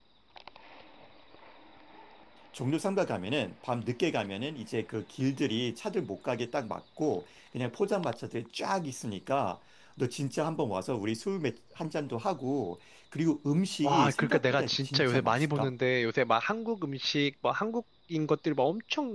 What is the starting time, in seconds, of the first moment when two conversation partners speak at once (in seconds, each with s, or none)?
13.8 s